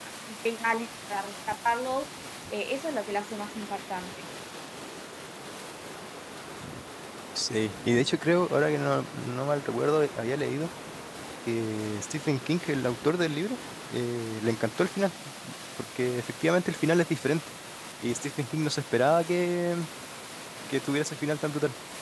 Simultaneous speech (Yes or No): No